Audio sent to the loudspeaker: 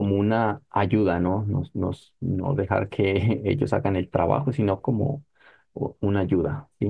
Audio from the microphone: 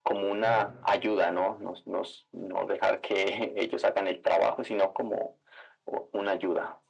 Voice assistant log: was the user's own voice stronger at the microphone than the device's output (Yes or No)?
No